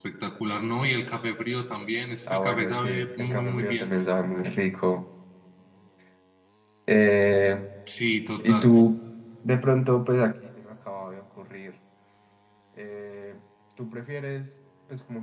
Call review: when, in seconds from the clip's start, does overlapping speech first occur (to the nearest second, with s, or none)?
2 s